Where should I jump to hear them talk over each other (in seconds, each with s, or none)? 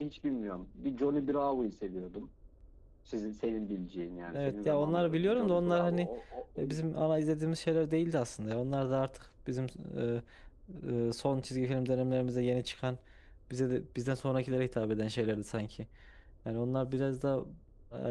4.3 s